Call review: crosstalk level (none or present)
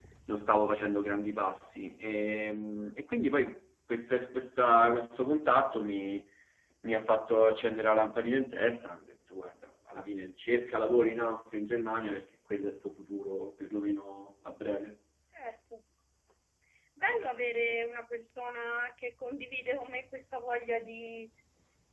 none